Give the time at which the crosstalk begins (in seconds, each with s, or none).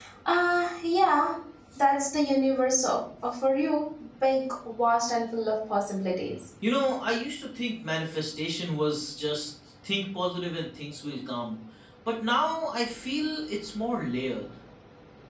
none